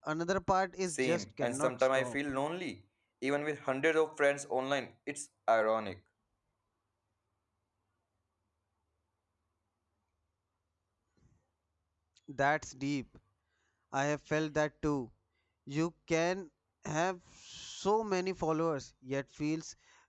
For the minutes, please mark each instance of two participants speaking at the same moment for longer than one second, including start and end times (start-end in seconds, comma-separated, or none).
0.9-2.2